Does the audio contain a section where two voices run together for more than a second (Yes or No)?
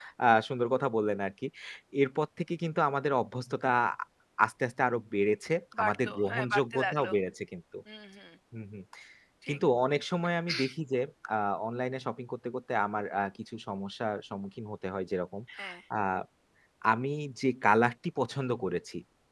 Yes